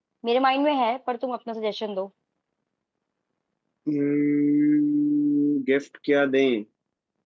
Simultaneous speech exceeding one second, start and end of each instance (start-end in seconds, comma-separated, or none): none